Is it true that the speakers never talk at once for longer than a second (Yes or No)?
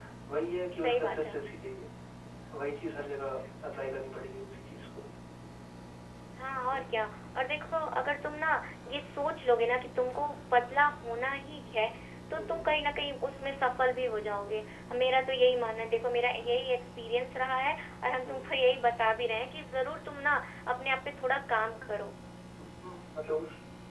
Yes